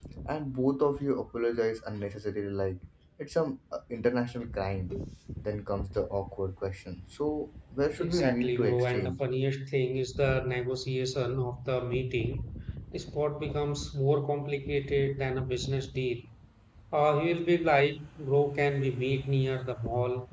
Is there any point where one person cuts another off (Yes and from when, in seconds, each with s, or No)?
Yes, from 8.0 s